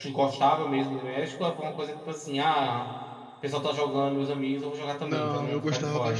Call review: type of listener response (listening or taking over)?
taking over